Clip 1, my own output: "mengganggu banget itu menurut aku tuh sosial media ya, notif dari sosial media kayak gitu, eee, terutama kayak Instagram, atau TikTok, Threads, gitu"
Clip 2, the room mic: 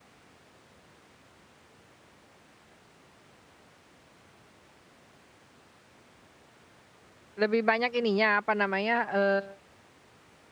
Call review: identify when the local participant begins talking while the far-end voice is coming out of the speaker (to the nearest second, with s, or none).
7 s